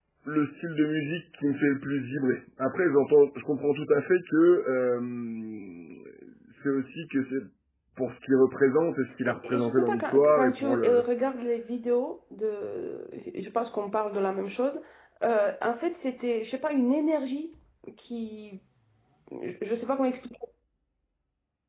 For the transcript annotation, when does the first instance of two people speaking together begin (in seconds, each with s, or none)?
9.2 s